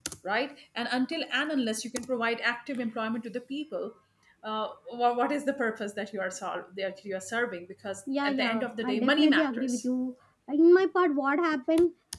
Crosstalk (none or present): present